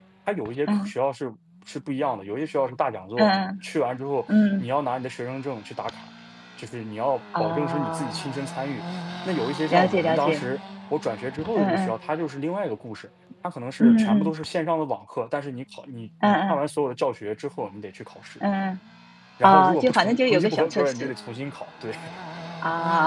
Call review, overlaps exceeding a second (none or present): present